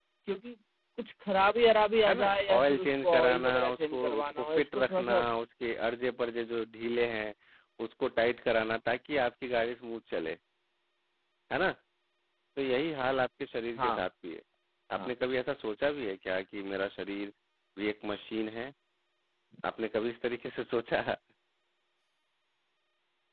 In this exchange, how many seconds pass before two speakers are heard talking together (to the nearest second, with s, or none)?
2 s